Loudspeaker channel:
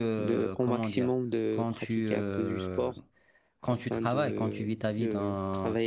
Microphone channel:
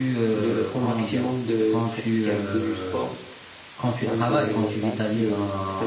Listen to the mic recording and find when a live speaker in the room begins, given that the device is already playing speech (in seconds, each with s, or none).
4.0 s